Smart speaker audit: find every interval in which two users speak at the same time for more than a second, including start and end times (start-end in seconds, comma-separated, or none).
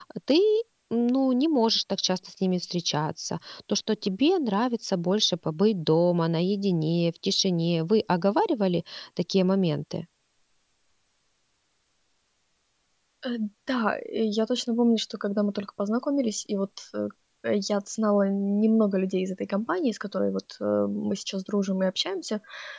none